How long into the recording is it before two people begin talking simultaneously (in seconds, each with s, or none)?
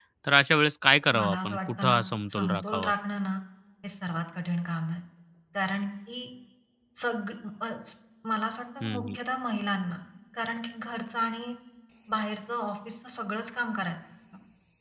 1.2 s